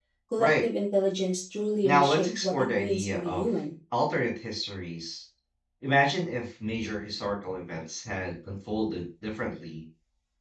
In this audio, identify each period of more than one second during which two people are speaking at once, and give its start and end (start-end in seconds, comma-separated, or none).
1.8-3.5